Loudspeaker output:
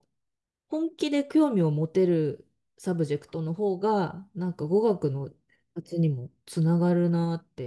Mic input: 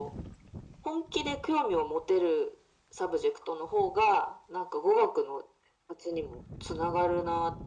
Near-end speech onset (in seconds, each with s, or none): none